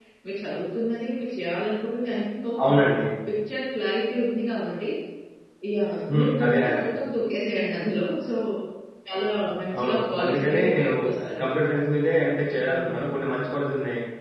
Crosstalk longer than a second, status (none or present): present